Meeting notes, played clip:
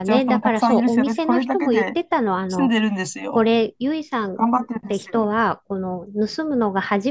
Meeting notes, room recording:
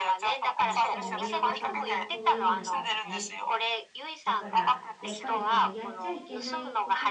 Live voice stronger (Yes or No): No